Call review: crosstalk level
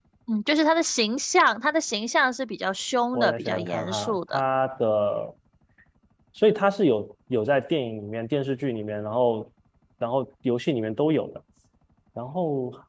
present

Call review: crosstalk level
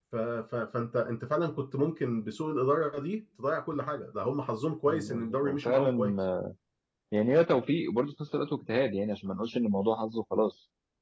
present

